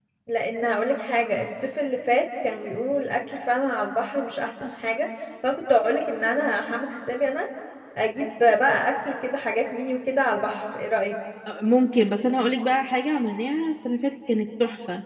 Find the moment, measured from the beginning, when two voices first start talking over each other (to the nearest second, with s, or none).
none